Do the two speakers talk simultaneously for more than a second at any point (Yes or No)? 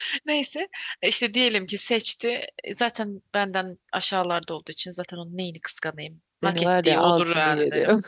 Yes